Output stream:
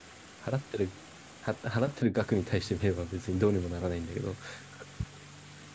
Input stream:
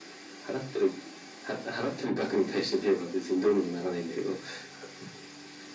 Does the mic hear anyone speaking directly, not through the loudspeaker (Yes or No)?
No